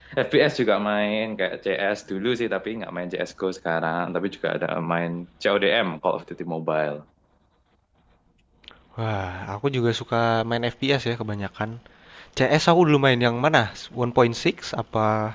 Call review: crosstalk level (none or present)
none